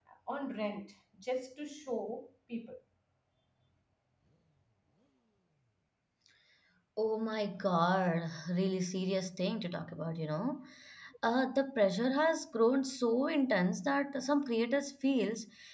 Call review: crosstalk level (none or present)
none